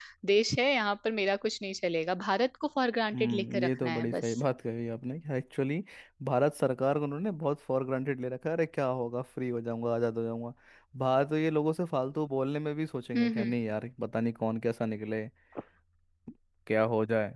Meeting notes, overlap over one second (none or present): present